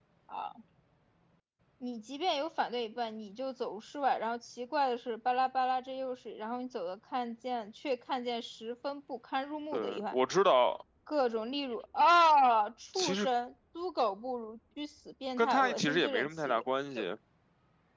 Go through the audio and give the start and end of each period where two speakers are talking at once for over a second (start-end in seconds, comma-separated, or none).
15.4-16.6